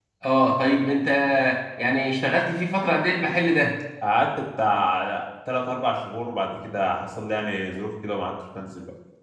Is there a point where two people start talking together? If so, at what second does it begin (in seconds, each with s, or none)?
none